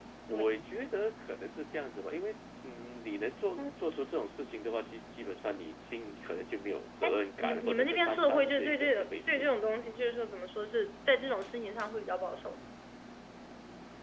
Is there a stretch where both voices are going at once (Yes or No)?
Yes